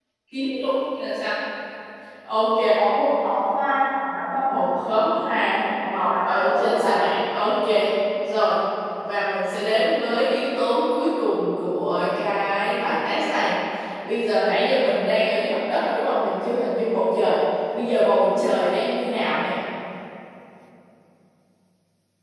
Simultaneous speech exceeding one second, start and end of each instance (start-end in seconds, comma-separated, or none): 5.6-7.1